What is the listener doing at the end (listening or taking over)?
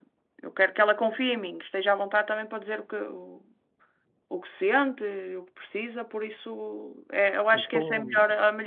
listening